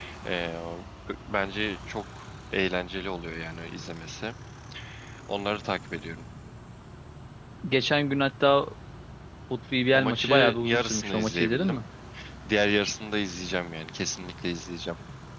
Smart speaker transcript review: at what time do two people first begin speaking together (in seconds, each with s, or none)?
9.9 s